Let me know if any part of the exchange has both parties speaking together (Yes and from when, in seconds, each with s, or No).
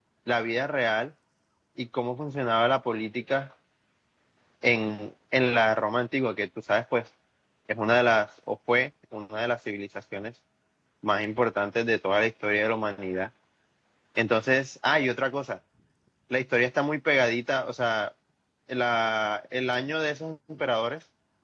No